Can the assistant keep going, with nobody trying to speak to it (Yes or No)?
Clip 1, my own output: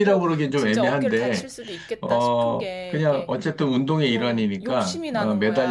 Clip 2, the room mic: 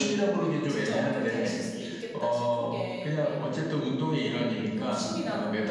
Yes